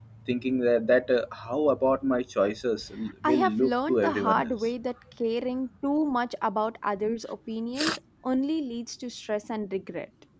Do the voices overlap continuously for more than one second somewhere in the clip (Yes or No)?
Yes